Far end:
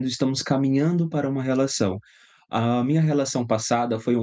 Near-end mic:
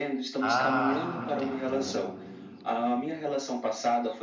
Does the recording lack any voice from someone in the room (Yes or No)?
No